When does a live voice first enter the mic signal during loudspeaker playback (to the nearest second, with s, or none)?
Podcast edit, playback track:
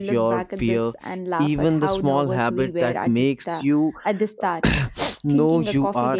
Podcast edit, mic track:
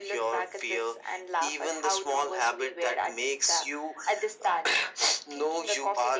none